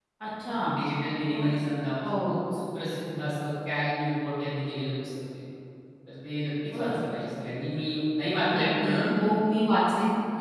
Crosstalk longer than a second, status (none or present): none